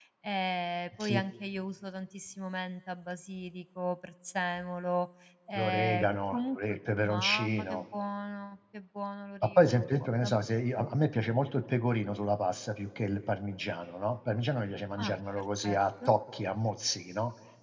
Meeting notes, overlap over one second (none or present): present